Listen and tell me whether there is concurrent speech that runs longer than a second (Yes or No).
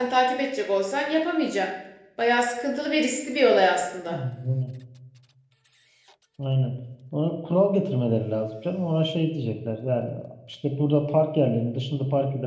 No